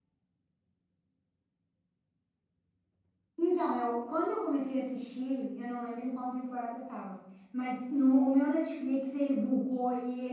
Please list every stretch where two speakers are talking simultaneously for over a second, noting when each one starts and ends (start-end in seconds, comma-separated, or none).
none